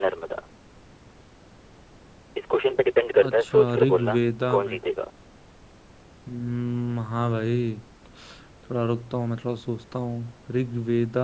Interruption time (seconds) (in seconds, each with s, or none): 3.2 s